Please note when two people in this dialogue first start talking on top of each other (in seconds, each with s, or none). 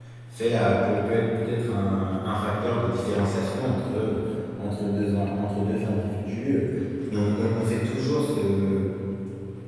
none